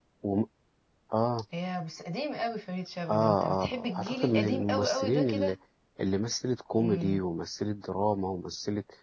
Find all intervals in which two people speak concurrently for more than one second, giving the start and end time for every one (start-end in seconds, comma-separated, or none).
3.1-5.5